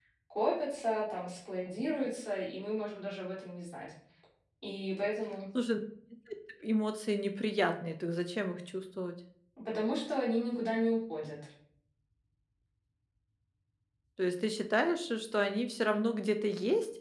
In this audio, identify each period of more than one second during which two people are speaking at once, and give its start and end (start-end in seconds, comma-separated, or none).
none